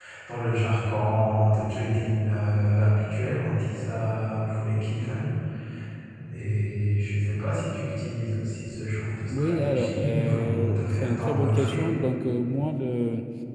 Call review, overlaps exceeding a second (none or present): present